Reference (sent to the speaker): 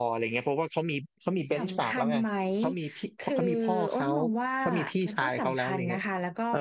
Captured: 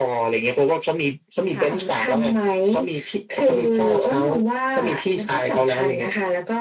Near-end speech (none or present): present